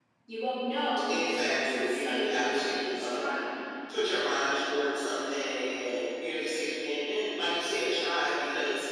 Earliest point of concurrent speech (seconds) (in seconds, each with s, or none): 1.1 s